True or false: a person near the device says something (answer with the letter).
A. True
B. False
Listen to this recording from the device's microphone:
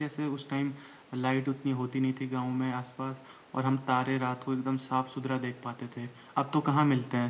B